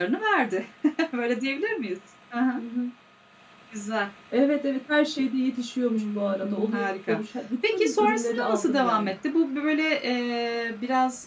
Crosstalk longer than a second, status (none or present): present